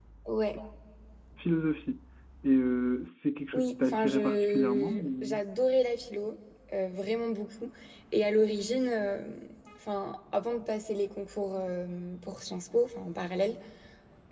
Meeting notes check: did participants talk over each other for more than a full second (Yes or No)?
Yes